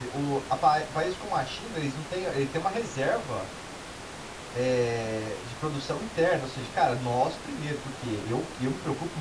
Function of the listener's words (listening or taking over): listening